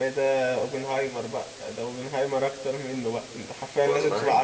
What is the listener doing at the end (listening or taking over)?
listening